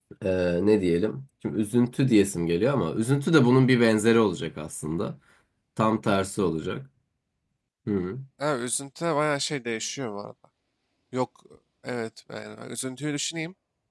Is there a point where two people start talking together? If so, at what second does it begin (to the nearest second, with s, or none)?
none